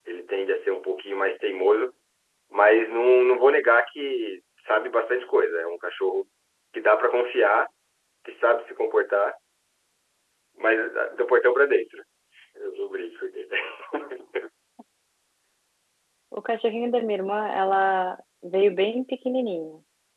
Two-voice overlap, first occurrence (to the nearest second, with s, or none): none